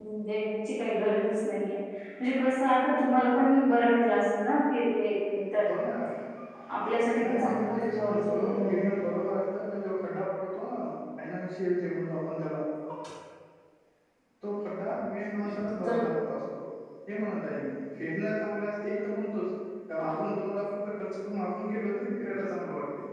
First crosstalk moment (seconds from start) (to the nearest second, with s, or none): 7 s